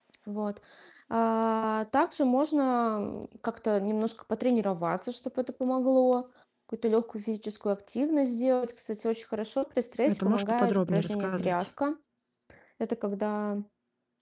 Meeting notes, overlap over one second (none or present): present